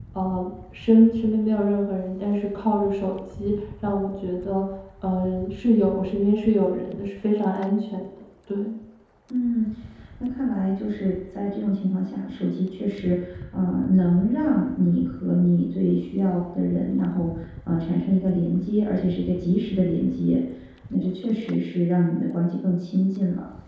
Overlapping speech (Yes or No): No